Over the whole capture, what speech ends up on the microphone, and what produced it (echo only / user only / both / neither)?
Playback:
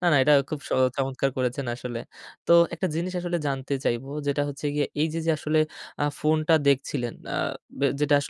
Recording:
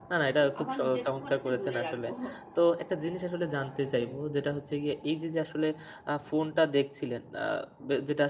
both